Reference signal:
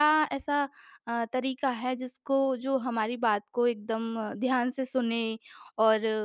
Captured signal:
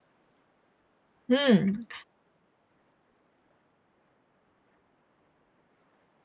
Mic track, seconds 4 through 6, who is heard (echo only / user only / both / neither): neither